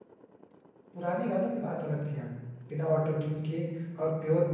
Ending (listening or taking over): listening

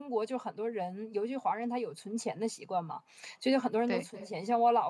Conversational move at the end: listening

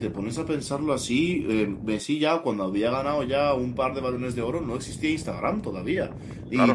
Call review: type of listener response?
listening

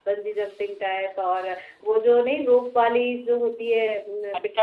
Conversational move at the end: taking over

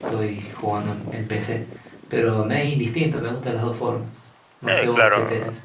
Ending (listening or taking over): taking over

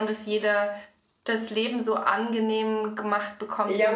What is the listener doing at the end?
taking over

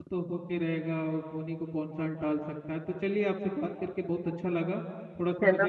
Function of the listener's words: listening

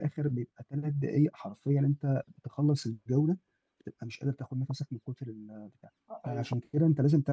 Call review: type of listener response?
listening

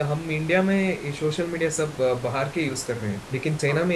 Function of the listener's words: listening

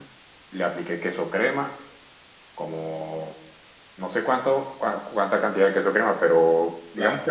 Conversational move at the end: listening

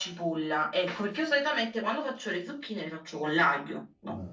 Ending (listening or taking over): taking over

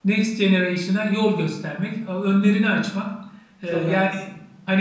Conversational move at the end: listening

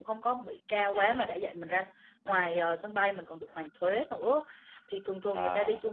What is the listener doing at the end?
listening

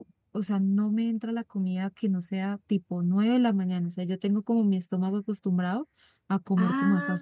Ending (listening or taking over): taking over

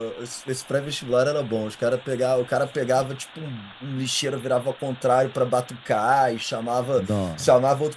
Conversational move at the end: listening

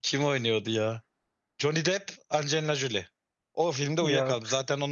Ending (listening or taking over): listening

